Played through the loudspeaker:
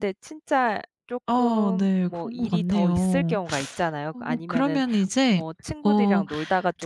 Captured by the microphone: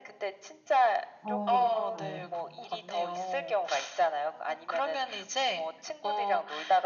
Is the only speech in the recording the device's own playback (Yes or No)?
No